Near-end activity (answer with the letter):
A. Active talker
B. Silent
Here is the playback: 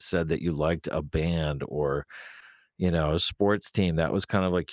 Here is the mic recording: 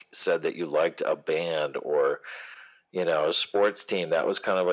B